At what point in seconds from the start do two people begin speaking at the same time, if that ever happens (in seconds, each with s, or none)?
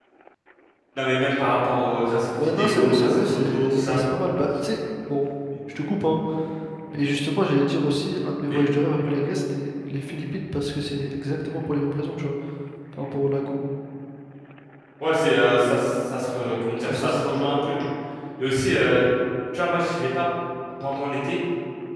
2.4 s